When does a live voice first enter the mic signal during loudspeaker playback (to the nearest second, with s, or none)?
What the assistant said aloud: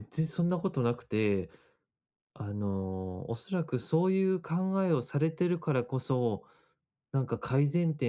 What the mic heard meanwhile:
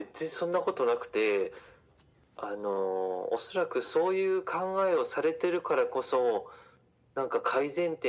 none